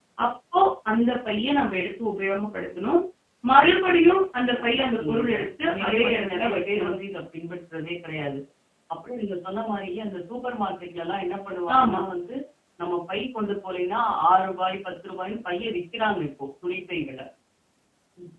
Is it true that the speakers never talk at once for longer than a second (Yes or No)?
No